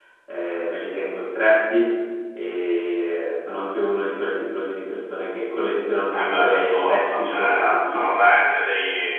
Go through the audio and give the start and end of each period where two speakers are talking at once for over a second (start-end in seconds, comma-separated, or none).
6.1-8.0